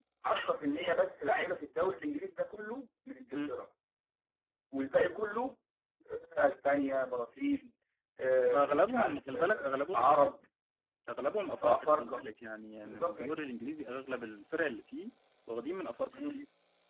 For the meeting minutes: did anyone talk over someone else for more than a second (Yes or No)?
Yes